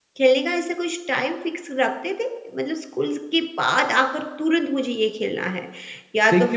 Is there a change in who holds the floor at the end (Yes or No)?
Yes